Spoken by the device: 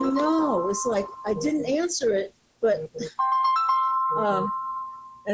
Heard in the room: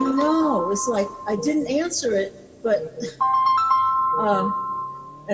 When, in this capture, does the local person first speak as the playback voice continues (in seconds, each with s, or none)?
none